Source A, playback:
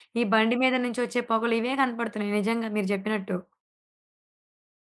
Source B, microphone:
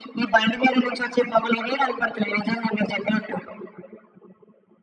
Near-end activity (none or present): none